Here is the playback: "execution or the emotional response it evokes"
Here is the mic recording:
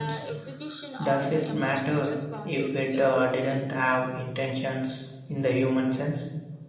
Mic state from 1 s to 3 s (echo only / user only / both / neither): both